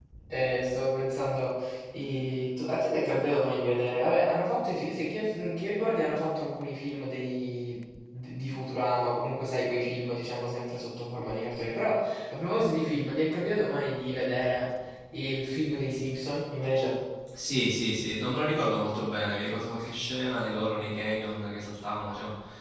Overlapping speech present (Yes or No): No